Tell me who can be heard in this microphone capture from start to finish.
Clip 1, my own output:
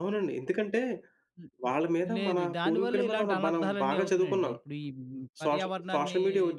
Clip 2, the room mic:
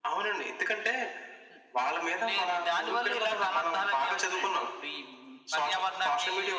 echo only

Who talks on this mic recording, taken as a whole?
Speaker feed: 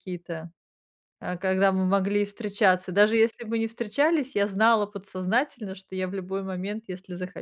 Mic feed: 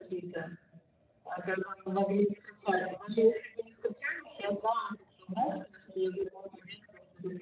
echo only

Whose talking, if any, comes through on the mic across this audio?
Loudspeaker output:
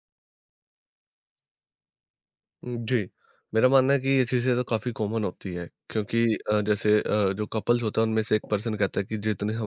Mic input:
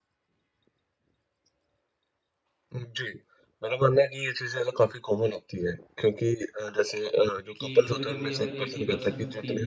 both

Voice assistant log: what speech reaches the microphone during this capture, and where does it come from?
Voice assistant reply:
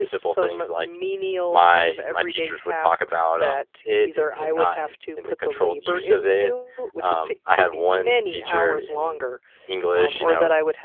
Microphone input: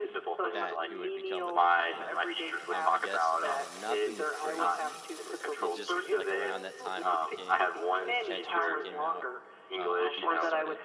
both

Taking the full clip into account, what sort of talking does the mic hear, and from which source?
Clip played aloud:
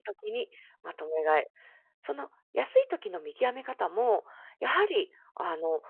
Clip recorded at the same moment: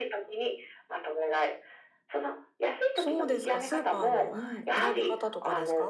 both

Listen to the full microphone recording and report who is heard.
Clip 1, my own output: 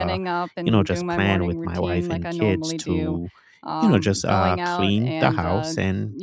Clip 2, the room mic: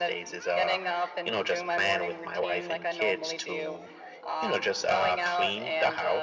echo only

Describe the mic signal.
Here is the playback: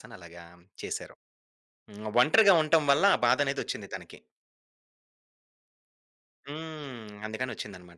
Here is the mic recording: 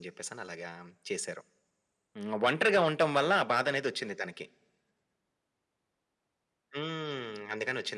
echo only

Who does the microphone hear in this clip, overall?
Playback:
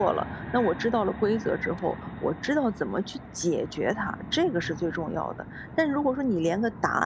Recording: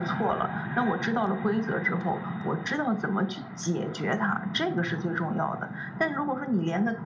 echo only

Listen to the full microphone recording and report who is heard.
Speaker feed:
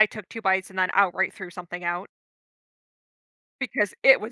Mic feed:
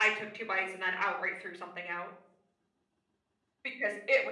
echo only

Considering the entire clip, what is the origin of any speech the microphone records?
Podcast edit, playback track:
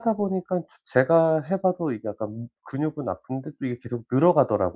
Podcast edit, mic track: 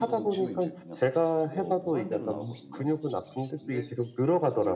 both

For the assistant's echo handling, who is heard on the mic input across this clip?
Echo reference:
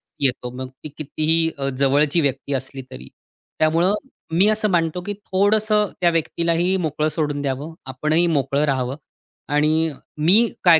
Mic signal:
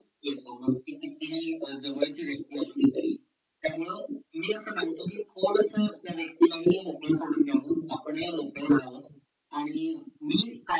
echo only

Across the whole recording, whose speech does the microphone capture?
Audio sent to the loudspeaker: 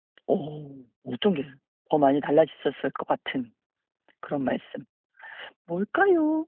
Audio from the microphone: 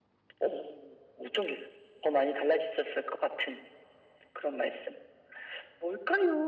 echo only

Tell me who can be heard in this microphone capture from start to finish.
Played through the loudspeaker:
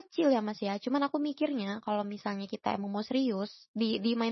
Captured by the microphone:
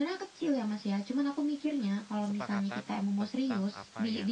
both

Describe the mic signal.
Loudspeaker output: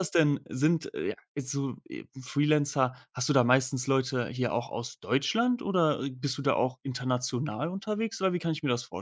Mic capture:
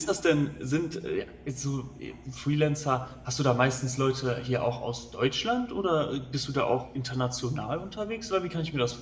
echo only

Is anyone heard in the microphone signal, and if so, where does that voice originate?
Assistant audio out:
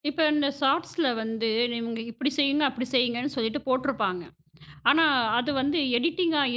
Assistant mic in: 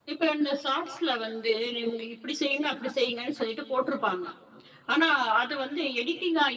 echo only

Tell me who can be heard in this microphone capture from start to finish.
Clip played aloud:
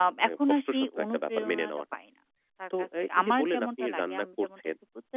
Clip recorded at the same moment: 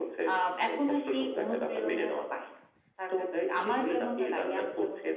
echo only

